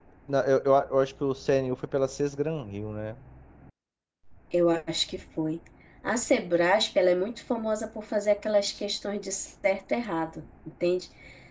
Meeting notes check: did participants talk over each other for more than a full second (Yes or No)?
No